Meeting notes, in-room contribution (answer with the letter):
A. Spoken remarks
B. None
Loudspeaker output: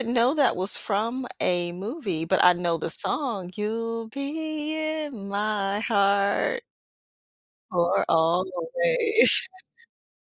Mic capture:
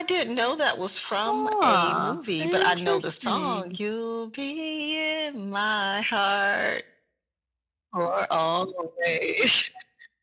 A